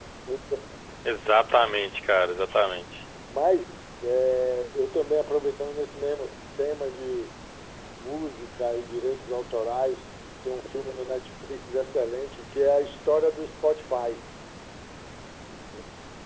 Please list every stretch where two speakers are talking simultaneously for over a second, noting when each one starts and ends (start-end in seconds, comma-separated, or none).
none